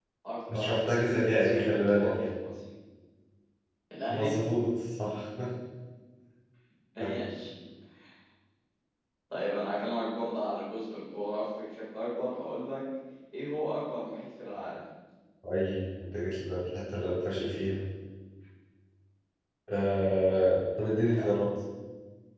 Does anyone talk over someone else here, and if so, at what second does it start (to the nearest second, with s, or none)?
1 s